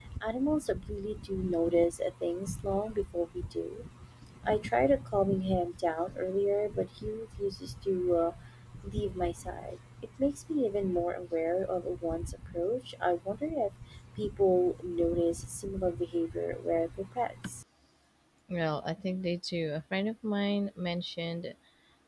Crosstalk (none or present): none